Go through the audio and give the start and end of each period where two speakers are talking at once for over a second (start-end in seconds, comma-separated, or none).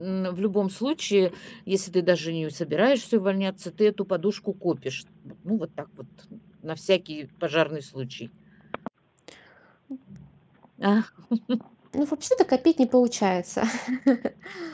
none